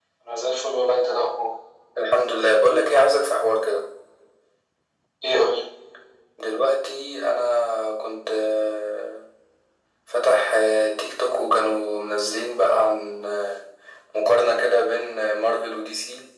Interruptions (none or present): none